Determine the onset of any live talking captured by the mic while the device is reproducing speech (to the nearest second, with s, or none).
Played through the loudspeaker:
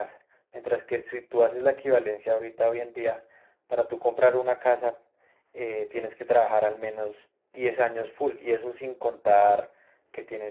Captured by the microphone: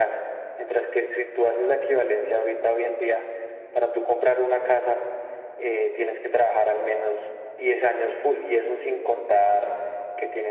none